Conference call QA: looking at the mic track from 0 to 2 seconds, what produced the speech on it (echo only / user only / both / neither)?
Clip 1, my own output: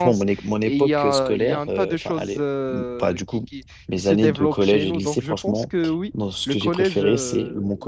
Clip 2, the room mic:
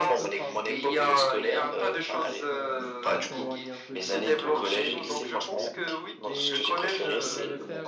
both